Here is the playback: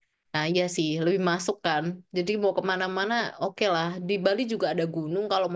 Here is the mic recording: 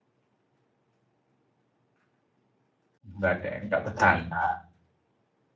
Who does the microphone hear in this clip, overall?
user only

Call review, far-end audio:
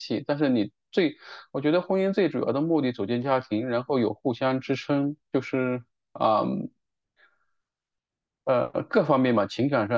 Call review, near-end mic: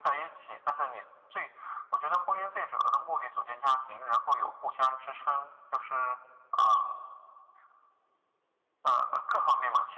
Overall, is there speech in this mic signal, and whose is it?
echo only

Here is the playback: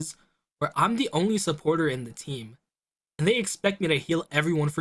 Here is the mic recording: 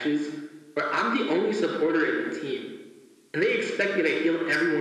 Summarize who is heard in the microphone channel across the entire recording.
echo only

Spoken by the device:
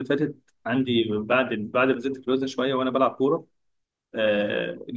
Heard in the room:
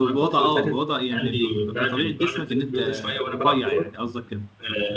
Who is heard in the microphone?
both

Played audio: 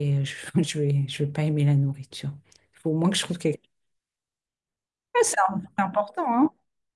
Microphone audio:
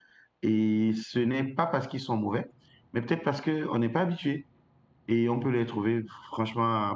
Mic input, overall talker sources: user only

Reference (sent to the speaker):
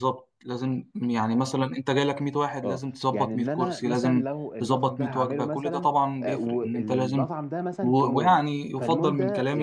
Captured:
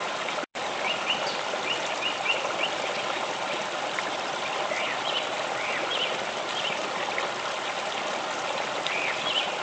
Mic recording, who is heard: neither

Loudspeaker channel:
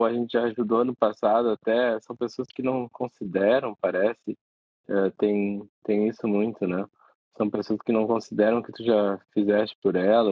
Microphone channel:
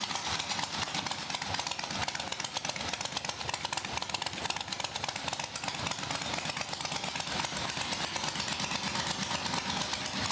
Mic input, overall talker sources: neither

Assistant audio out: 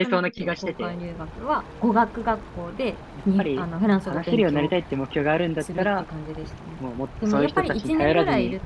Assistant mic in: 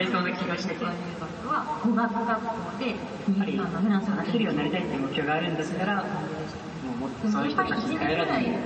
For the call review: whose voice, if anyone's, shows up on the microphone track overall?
echo only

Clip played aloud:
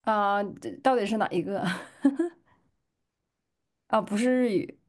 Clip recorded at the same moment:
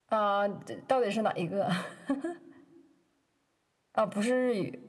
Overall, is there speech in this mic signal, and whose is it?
echo only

